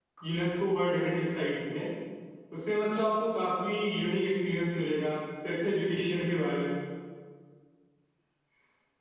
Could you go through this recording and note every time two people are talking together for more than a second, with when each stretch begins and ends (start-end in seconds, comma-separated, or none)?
none